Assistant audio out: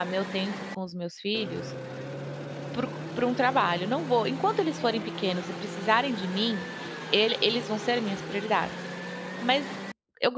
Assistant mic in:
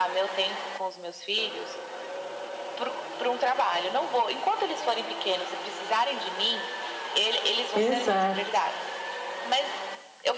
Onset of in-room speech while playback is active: 8 s

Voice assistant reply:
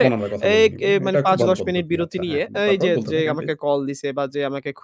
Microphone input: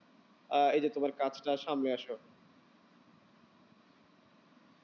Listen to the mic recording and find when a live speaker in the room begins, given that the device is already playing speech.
1 s

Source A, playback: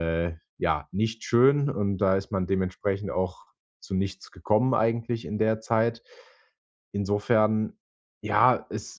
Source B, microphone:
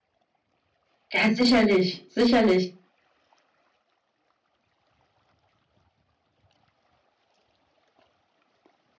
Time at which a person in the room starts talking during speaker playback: 1 s

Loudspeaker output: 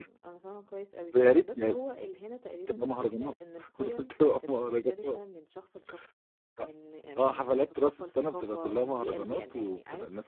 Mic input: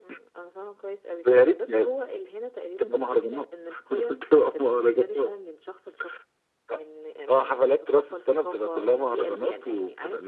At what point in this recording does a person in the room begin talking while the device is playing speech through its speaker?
none

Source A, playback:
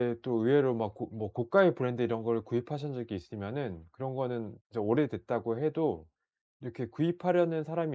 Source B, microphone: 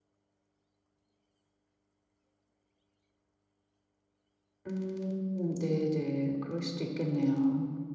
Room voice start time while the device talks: 5 s

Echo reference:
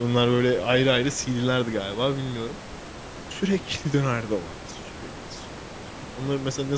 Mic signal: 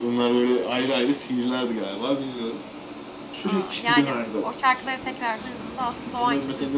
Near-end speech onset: 3 s

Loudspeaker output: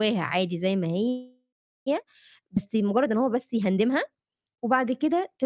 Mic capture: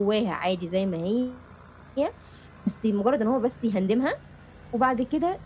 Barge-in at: none

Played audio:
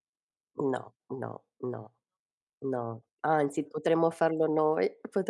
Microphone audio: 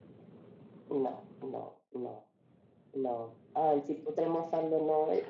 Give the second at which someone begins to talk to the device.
none

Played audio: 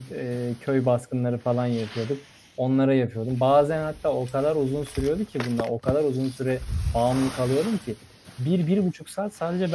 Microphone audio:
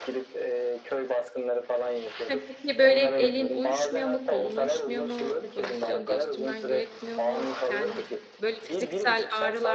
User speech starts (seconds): 2 s

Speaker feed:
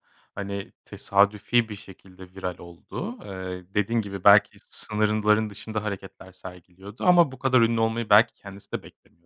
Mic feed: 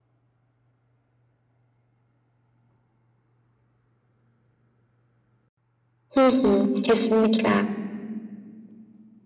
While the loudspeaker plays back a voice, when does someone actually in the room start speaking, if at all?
6 s

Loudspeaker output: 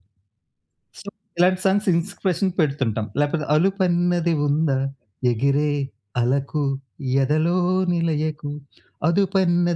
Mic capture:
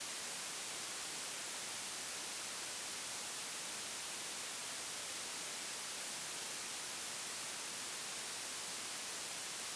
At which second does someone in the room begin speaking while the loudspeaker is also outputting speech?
none

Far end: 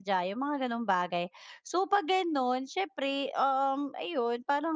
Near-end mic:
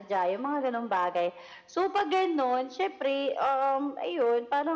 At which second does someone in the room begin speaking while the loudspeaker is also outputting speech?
none

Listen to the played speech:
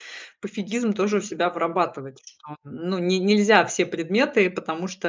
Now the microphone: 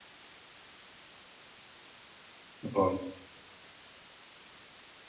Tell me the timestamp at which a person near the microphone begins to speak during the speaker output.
3 s

